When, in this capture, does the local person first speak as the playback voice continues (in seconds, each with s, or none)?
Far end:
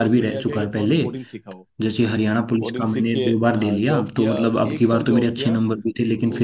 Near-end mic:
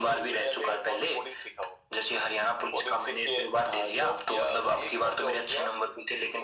none